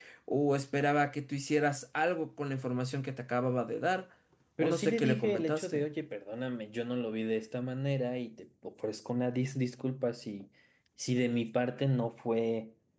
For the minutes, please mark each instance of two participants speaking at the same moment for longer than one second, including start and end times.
4.6-5.9

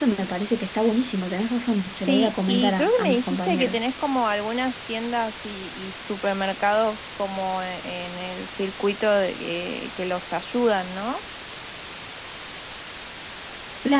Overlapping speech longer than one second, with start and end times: 1.9-3.8

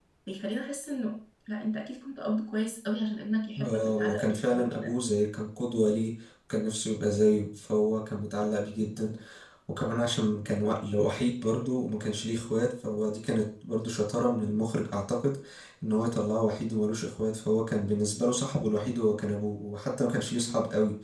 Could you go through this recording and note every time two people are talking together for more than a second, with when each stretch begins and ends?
3.6-4.9

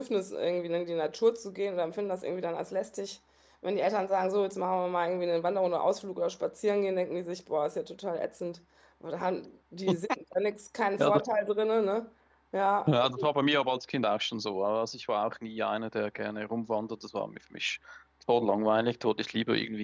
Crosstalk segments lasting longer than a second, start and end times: none

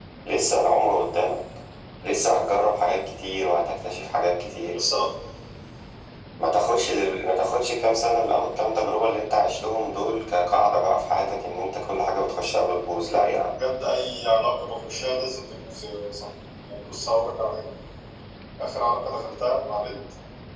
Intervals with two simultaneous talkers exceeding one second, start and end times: none

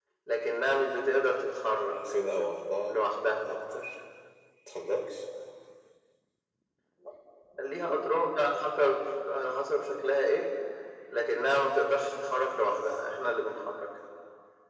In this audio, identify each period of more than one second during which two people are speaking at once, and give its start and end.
none

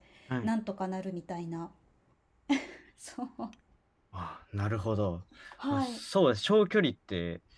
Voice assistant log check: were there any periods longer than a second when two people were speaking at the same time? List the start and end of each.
none

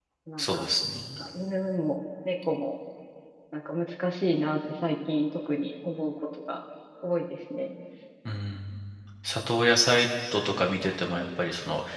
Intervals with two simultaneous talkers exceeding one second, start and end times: none

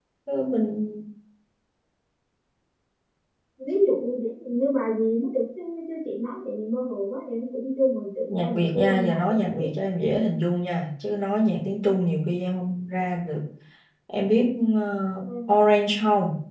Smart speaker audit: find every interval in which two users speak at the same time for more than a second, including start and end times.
8.3-9.7

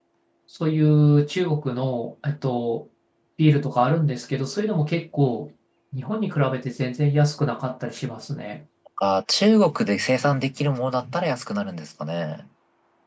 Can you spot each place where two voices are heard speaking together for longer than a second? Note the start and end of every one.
none

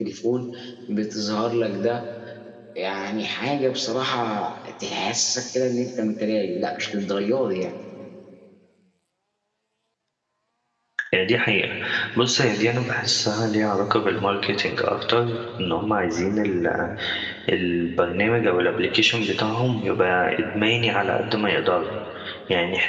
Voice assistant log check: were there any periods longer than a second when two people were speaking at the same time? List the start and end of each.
none

